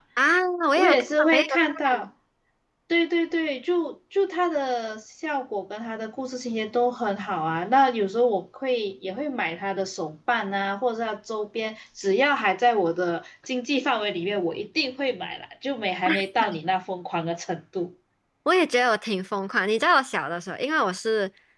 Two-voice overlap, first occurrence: 0.8 s

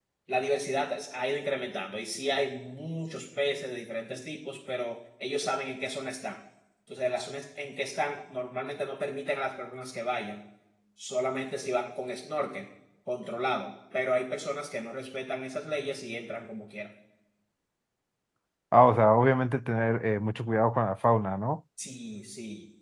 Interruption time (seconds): none

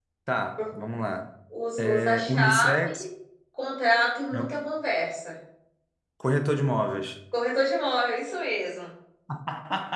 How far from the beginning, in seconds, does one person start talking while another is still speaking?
1.8 s

